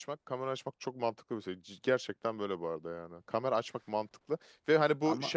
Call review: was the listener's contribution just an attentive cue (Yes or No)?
Yes